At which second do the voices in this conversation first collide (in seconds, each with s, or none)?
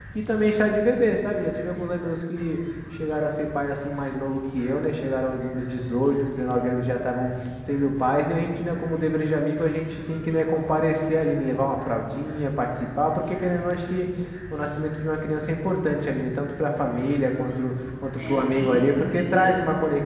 18.2 s